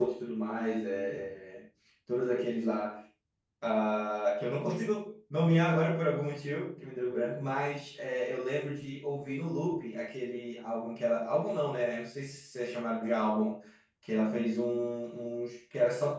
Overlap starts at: none

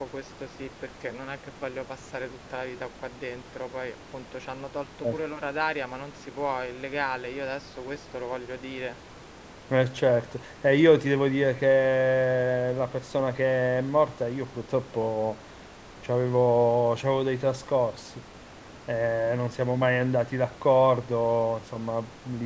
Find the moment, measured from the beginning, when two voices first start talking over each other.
none

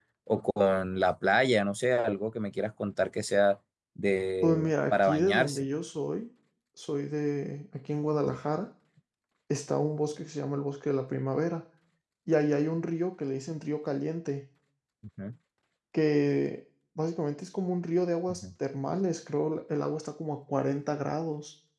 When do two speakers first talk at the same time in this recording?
4 s

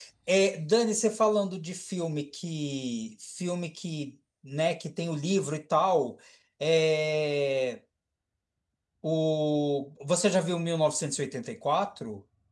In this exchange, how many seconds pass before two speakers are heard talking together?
none

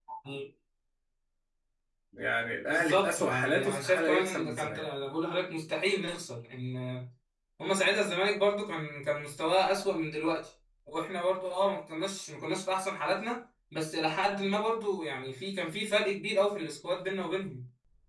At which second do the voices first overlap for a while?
3 s

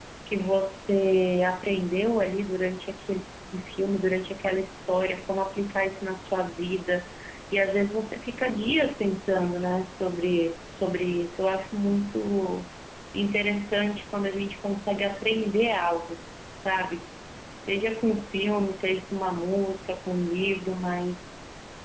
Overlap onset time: none

